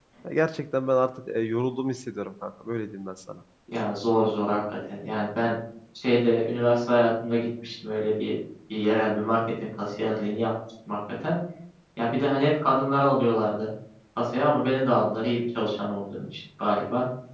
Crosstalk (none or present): none